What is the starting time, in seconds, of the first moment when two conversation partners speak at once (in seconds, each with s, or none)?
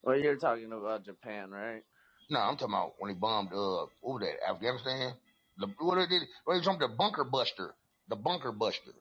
none